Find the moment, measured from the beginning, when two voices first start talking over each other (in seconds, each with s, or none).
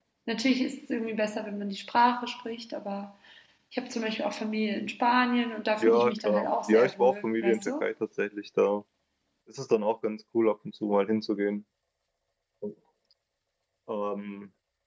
5.8 s